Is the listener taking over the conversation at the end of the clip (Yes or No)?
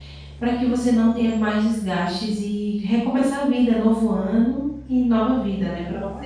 Yes